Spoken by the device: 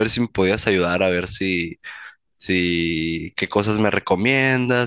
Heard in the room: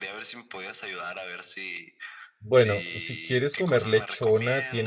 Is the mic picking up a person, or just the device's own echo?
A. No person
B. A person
B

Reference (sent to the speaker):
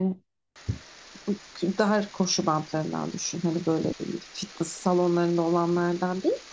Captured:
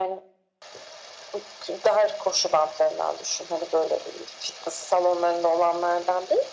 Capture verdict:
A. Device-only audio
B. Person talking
A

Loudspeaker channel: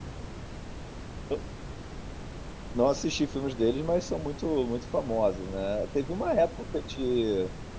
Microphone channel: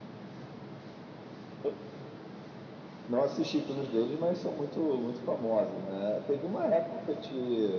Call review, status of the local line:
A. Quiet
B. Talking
A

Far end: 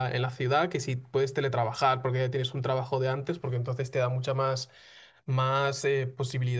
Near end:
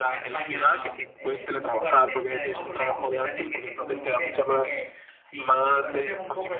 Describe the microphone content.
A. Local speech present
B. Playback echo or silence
A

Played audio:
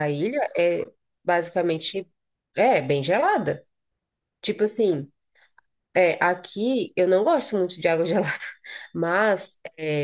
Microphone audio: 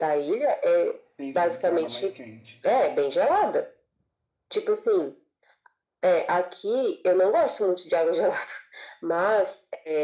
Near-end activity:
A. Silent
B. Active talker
B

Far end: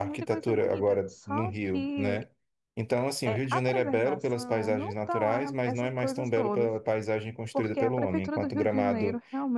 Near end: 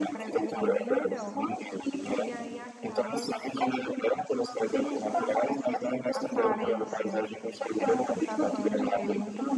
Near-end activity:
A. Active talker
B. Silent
A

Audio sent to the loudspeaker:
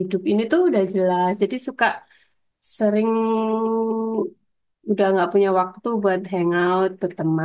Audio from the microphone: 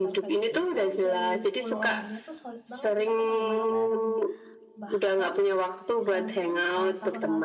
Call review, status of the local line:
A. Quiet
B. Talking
B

